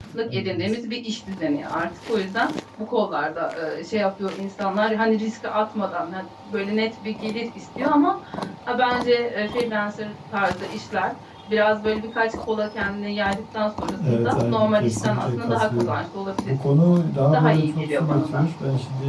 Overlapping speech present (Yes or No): Yes